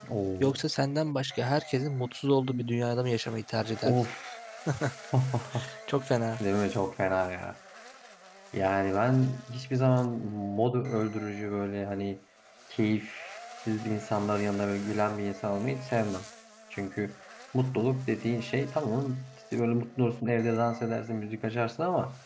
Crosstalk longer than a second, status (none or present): none